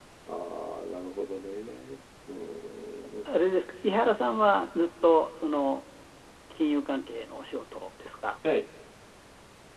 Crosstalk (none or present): none